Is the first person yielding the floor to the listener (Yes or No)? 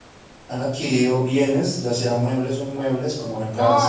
Yes